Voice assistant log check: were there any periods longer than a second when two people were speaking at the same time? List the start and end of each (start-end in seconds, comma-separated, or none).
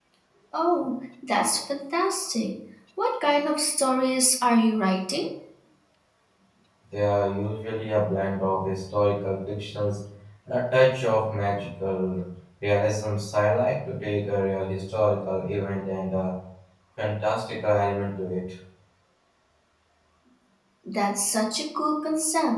none